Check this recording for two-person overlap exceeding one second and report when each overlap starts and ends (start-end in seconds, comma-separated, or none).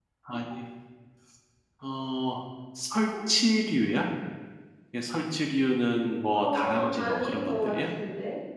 6.3-7.7